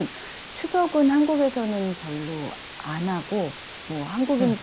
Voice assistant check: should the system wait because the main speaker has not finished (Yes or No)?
Yes